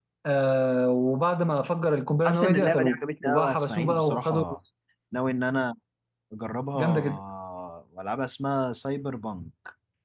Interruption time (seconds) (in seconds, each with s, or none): 2.2 s